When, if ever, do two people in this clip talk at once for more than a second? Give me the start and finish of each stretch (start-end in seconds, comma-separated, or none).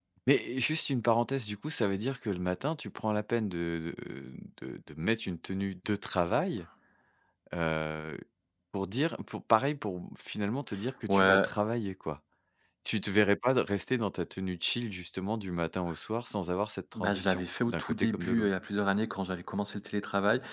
16.9-18.5